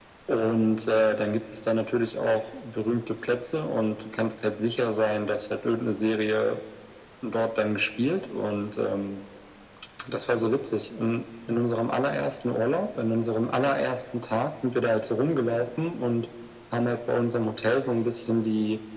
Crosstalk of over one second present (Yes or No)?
No